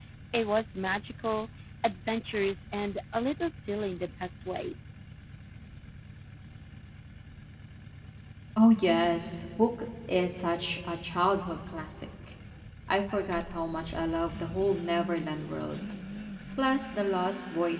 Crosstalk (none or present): none